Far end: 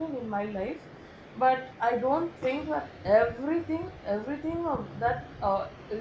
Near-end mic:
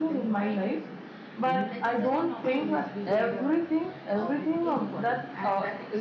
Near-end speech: present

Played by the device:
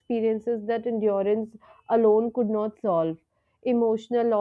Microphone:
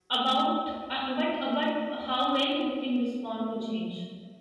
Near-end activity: present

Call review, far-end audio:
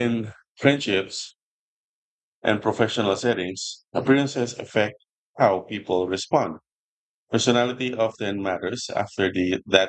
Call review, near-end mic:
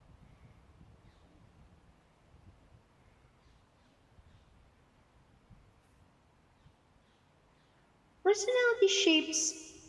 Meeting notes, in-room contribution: present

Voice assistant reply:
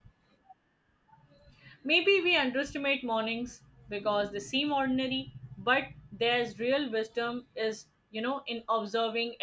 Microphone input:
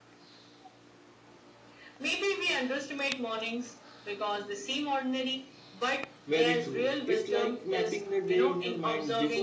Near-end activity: present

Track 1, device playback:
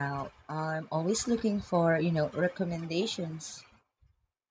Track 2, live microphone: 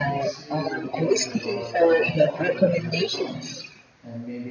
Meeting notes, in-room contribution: present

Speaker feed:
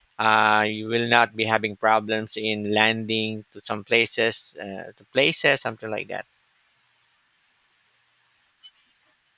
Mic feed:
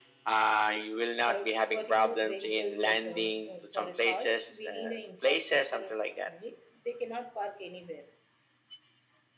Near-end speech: present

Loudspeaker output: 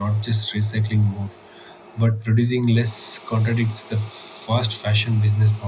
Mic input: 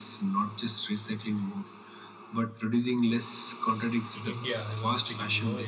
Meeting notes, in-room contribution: present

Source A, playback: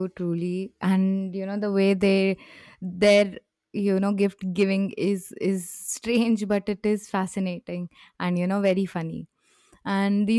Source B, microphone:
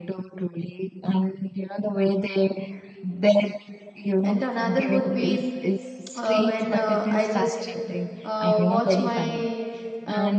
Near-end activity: present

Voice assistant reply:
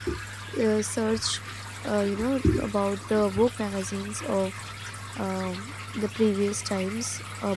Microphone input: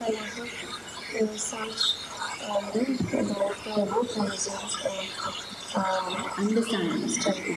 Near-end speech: present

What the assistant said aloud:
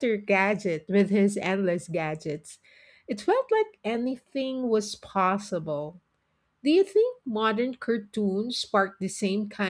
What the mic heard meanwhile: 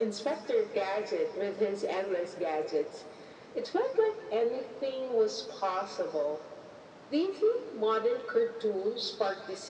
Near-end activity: none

